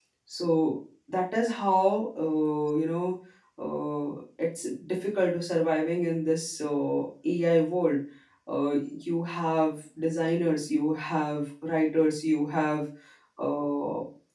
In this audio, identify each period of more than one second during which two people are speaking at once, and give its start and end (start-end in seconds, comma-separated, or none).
none